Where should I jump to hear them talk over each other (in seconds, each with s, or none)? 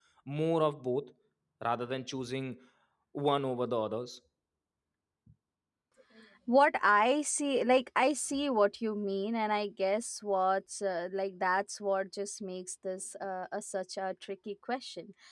none